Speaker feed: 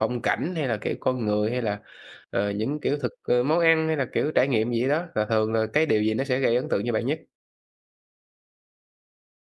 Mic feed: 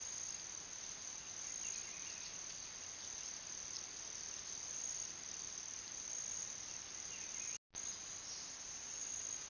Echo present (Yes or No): No